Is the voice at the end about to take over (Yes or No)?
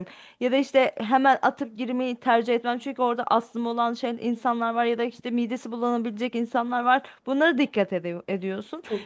No